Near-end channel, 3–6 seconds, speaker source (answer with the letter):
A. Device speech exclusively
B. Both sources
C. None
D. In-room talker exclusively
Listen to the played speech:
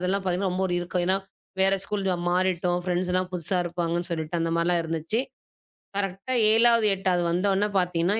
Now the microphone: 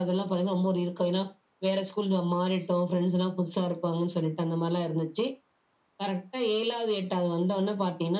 A